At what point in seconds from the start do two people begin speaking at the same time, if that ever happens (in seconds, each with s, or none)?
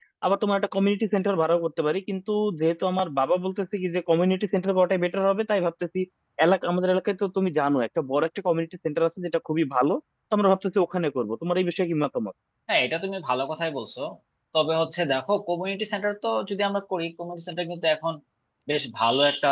none